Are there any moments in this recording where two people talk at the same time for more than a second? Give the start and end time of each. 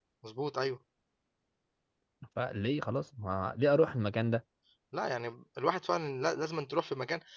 none

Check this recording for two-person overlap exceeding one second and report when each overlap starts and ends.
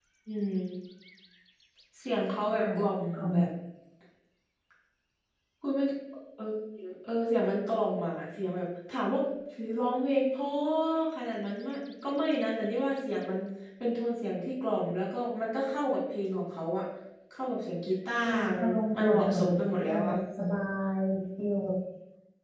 18.2-19.5

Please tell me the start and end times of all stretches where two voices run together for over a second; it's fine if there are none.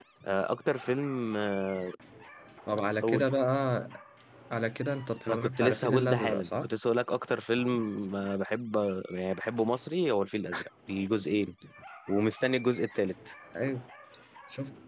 5.3-6.7

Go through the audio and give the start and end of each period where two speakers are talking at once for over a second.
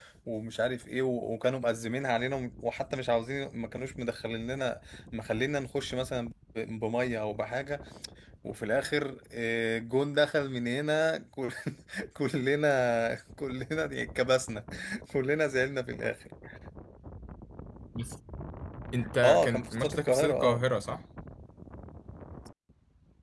19.2-20.6

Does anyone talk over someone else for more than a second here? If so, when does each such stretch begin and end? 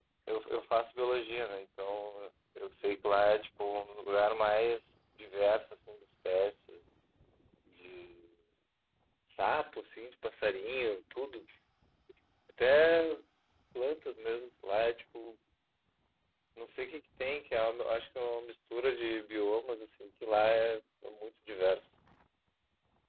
none

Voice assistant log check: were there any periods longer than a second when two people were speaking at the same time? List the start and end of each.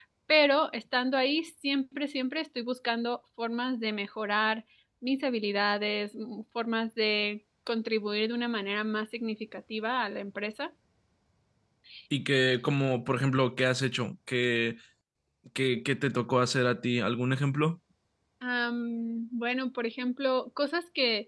none

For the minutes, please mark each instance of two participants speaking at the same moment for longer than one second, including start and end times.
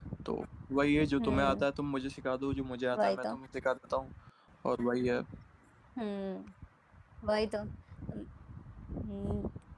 none

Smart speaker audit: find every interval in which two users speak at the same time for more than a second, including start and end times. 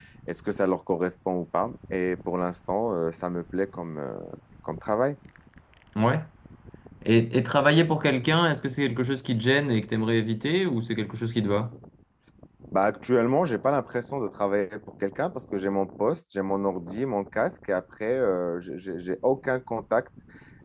none

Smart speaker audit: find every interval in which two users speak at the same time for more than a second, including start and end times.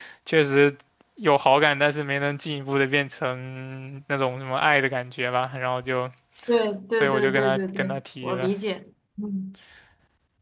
7.0-8.5

